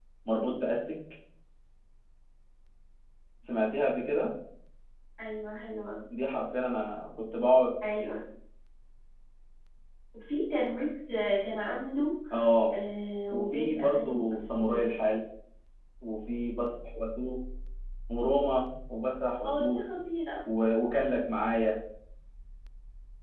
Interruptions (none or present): present